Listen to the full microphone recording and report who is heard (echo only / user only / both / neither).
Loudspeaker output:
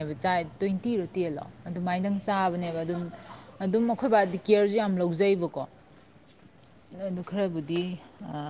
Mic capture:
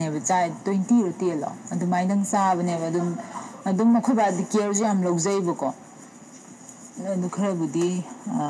echo only